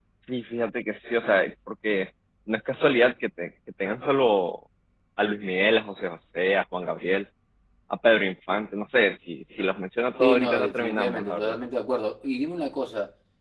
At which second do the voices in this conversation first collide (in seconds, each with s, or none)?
10.2 s